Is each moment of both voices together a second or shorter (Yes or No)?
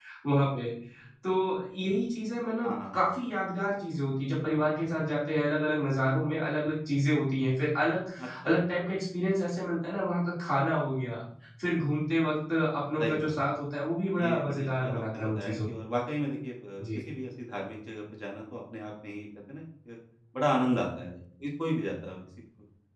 No